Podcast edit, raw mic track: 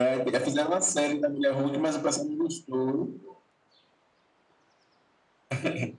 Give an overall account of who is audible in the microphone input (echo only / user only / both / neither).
echo only